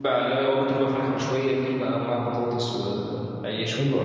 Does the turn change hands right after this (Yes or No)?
Yes